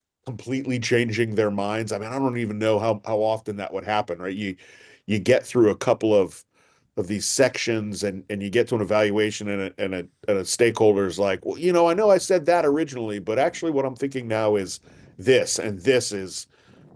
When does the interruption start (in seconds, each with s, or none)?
none